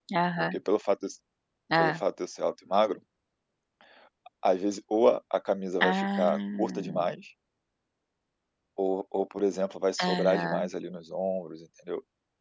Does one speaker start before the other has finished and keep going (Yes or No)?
Yes